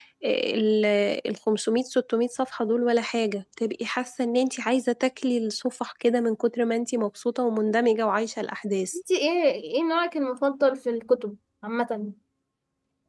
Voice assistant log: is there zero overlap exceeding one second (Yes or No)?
Yes